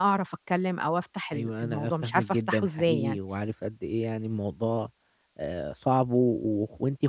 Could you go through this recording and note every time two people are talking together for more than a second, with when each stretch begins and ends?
1.3-3.2

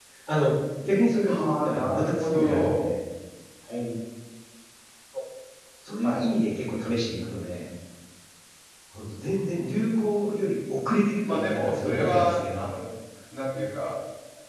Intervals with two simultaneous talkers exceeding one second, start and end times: 1.3-2.9, 11.3-12.7

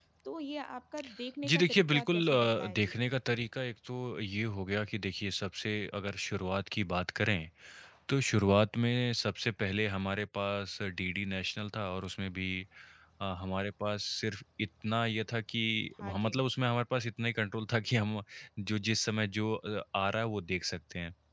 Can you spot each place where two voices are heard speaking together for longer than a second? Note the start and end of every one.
1.5-2.9

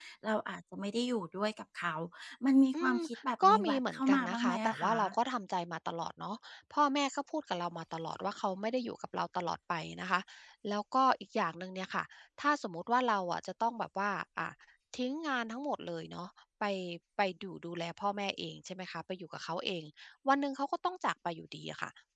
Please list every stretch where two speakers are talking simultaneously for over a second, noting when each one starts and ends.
3.4-4.8

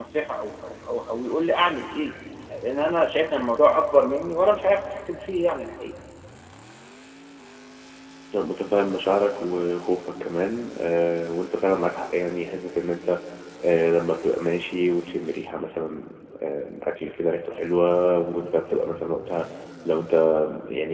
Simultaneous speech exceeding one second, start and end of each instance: none

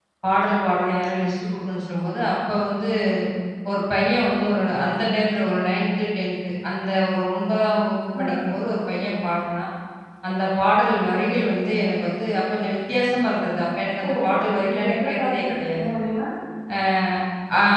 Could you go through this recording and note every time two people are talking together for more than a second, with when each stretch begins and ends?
14.6-15.9

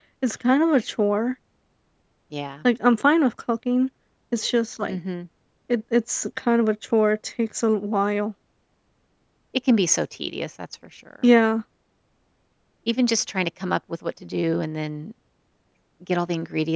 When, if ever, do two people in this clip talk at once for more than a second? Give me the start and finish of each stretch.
none

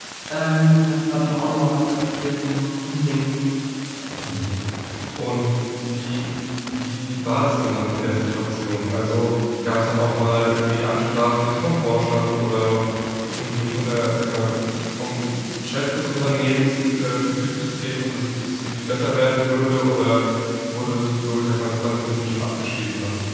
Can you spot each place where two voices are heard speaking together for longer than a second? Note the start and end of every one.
none

